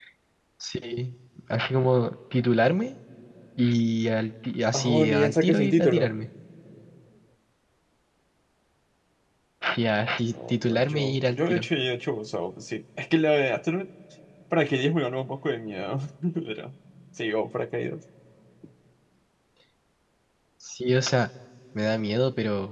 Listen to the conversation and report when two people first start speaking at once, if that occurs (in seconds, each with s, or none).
4.8 s